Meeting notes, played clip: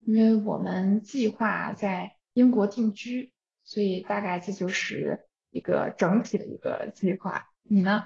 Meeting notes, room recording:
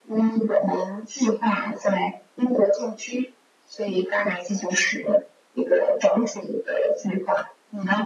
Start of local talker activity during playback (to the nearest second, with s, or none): none